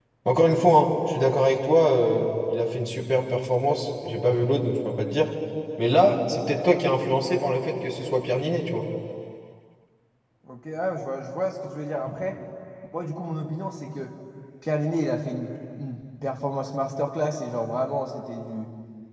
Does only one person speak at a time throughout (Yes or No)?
Yes